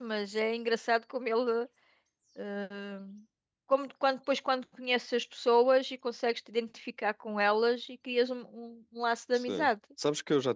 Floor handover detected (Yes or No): Yes